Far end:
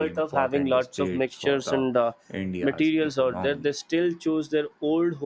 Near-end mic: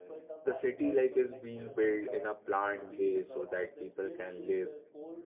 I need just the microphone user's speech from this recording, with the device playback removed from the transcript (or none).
the city like is being built in a planned way so that people can live,